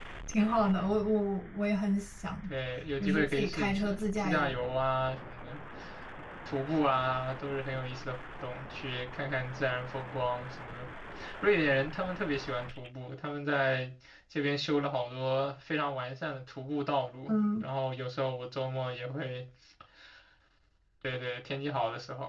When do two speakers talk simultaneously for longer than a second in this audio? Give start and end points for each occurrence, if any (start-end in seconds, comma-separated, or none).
3.0-4.5